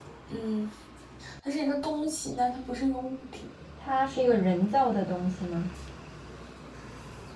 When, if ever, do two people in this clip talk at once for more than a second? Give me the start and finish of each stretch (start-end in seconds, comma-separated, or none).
none